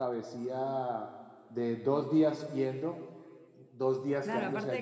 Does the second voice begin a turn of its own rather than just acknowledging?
Yes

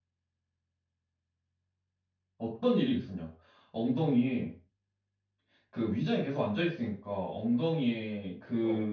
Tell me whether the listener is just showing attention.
Yes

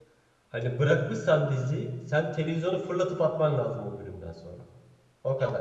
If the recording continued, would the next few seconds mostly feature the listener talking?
Yes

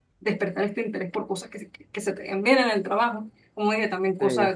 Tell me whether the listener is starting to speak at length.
No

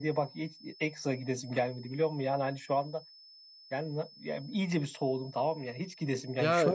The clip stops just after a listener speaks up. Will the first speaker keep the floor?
No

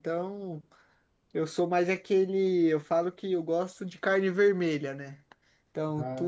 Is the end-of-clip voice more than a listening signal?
No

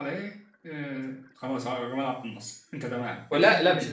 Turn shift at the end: Yes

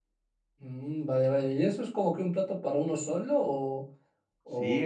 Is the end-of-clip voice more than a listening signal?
Yes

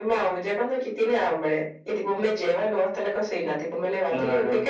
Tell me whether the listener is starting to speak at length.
No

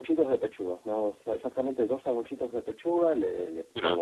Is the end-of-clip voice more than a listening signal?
No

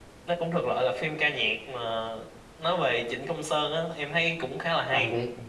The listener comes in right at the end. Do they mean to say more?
Yes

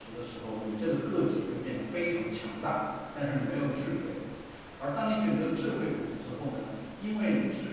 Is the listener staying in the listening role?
Yes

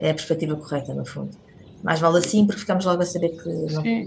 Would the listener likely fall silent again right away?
No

